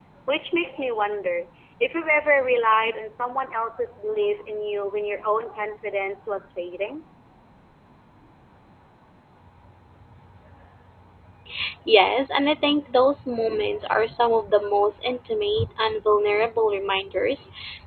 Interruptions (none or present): none